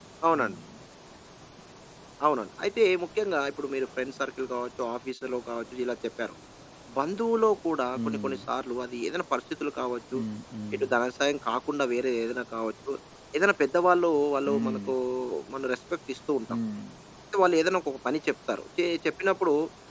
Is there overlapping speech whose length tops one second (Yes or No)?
No